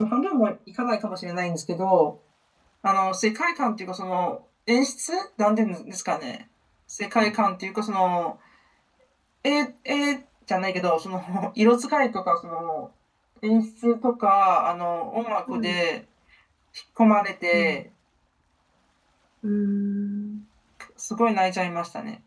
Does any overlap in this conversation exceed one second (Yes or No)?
No